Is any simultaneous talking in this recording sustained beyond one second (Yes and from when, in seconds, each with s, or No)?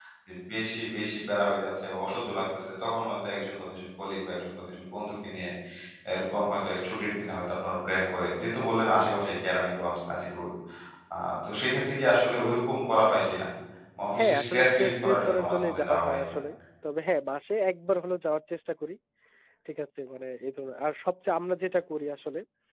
Yes, from 14.2 s